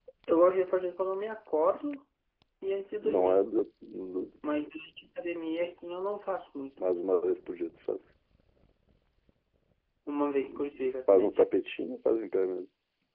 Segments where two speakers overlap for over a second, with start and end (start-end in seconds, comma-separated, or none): none